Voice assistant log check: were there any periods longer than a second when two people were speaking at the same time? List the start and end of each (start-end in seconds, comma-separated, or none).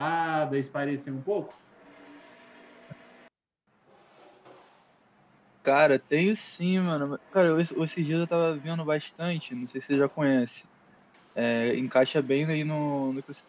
none